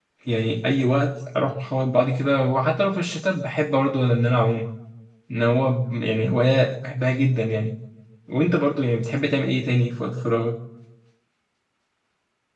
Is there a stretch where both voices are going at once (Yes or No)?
No